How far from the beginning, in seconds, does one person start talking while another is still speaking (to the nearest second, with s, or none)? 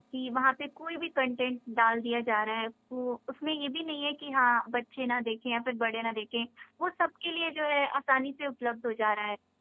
none